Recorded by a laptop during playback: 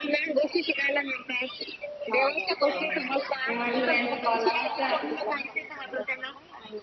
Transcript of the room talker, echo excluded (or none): हो मी म्हटलं त्यांचा कॉल आला होता